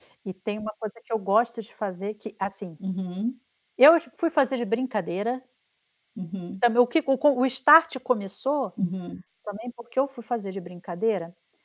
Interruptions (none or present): none